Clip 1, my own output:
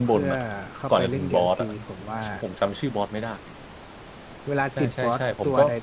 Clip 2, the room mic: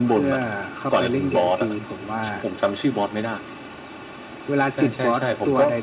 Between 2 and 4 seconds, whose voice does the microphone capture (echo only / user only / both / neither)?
echo only